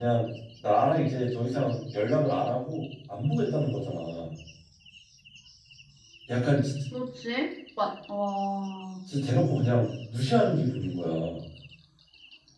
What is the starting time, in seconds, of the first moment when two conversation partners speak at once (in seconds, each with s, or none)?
none